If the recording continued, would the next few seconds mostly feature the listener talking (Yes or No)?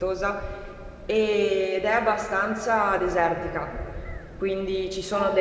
No